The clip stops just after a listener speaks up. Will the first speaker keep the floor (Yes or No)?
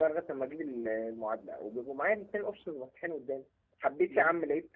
Yes